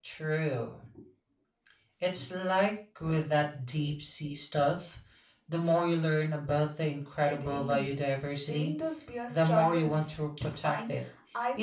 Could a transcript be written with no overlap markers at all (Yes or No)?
No